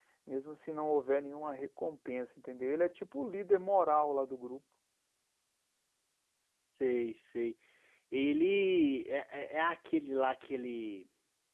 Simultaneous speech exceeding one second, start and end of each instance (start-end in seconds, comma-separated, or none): none